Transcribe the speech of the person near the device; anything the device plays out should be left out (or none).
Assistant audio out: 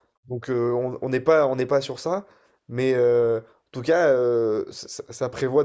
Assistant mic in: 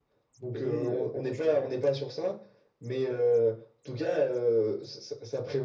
Pedri, euh, franchement. qu'est-ce que-